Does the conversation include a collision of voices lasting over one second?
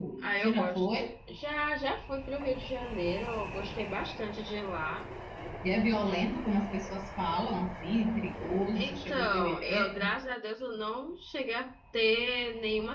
Yes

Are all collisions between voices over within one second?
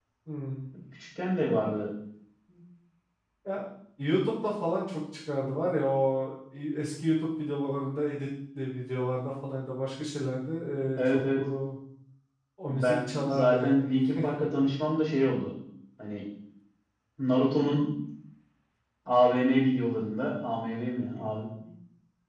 No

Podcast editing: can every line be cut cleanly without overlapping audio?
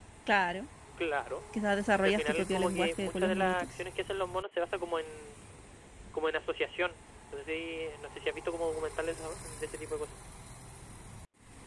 No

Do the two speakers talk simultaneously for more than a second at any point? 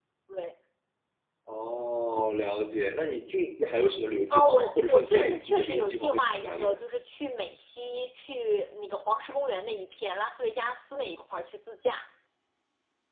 Yes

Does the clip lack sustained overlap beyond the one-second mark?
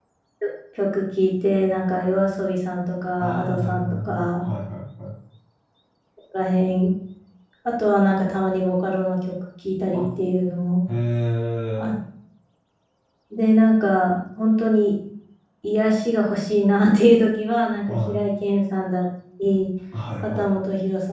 No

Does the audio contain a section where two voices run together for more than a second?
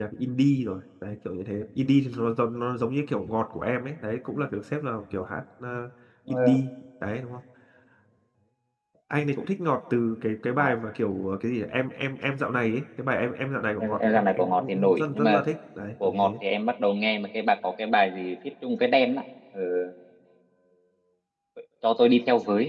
Yes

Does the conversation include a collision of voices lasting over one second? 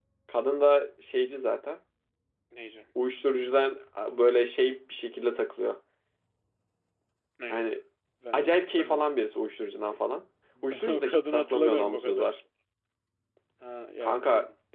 Yes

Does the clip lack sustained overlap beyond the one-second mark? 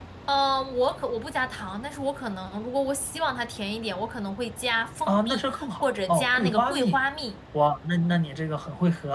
No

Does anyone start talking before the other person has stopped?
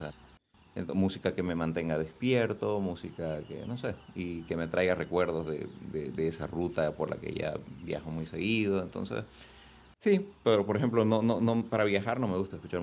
No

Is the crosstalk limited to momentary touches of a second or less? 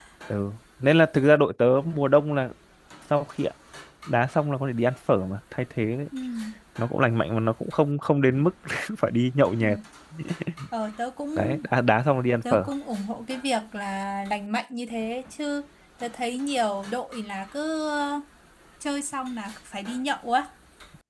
Yes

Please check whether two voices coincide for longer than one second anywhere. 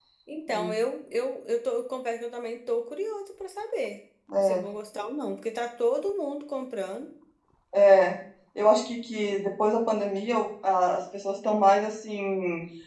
No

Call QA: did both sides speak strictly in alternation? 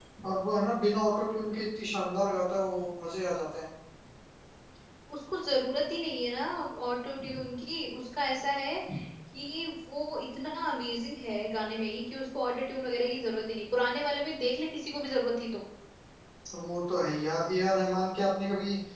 Yes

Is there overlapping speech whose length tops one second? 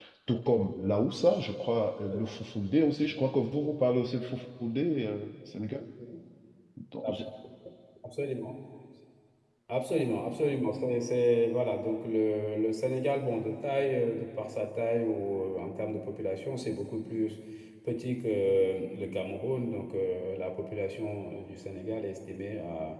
No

